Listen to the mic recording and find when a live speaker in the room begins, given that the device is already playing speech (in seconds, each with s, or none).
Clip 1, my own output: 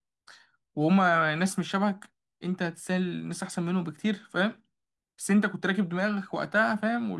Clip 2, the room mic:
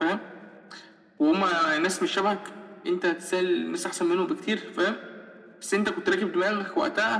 none